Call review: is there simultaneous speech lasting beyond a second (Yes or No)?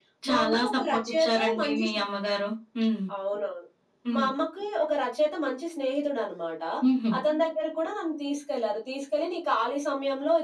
Yes